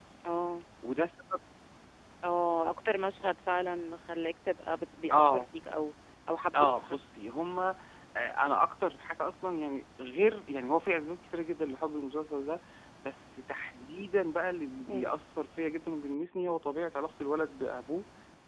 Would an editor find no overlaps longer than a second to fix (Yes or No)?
Yes